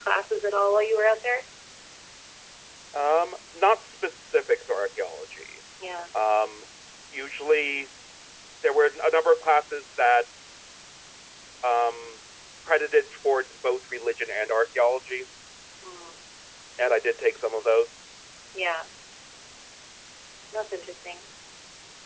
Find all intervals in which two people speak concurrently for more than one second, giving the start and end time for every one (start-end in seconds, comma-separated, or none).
none